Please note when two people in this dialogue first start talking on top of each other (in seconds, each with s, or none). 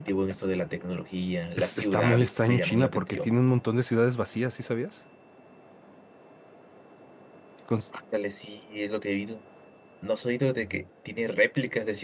1.6 s